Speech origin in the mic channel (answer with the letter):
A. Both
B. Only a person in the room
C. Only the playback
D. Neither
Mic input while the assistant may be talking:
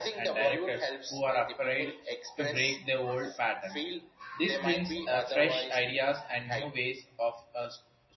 A